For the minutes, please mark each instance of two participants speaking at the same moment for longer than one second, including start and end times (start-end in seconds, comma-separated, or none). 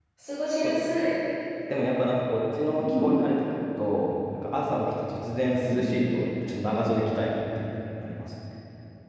none